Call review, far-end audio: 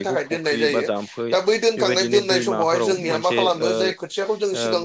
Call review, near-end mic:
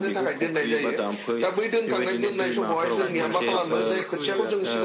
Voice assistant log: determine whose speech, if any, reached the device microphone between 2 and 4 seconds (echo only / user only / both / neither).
both